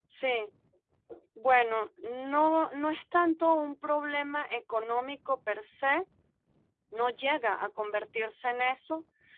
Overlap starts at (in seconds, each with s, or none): none